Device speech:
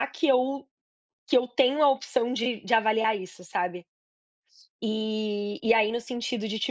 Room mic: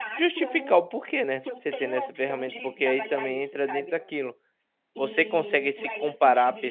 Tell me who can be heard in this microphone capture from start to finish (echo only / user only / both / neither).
both